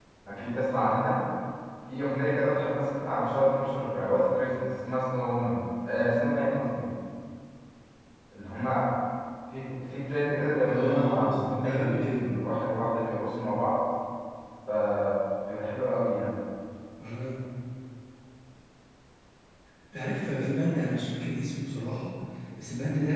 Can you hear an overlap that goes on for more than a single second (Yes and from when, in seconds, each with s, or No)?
Yes, from 10.7 s